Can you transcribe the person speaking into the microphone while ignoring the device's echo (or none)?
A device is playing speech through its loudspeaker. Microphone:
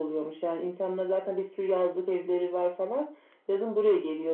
none